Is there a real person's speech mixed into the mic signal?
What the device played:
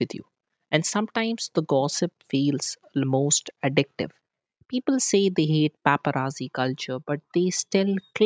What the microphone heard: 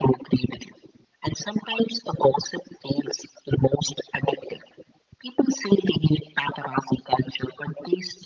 No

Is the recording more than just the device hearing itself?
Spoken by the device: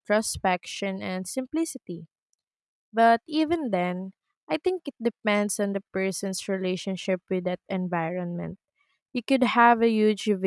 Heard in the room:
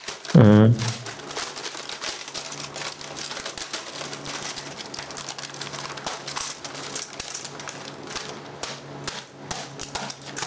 Yes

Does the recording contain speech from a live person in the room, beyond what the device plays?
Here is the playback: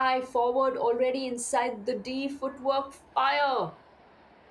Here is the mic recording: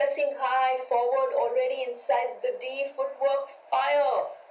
No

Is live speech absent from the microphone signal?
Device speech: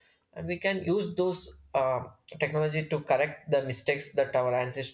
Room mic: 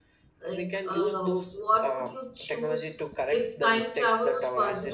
No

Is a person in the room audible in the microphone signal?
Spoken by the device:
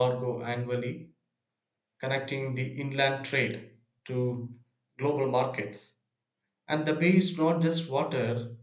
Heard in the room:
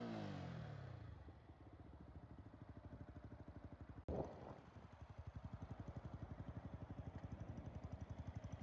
No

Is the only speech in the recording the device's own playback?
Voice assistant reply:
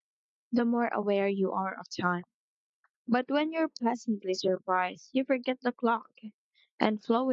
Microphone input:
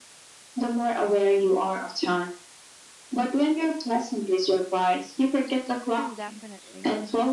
No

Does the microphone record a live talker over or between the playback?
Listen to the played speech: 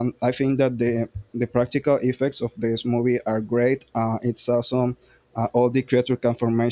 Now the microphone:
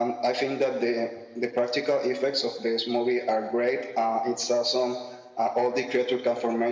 No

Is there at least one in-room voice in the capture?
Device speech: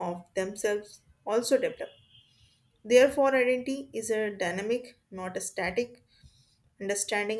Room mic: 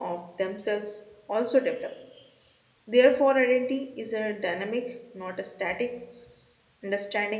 No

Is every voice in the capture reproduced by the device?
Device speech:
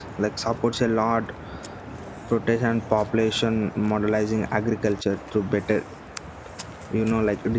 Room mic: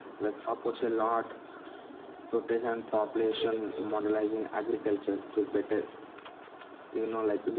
No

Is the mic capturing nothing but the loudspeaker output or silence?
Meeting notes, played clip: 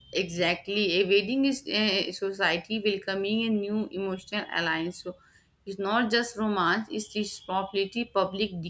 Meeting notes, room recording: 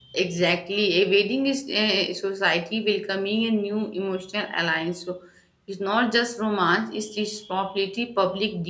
Yes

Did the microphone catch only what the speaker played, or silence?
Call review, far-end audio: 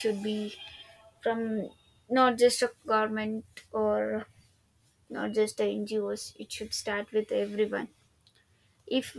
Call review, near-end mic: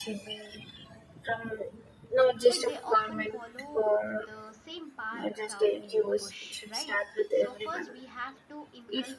No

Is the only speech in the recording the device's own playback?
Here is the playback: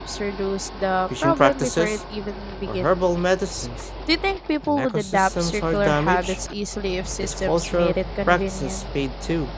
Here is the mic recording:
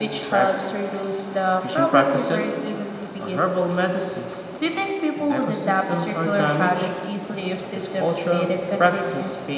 Yes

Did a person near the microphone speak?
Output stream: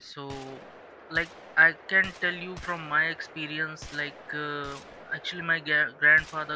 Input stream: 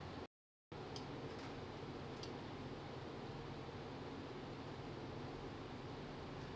No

